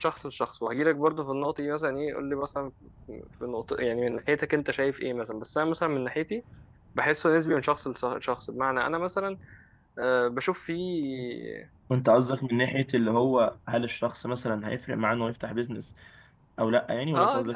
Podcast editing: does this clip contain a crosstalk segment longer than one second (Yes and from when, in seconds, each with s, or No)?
No